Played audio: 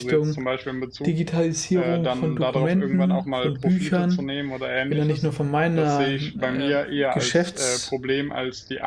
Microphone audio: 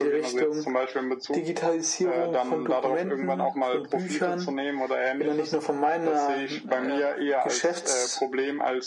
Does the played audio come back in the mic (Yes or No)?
Yes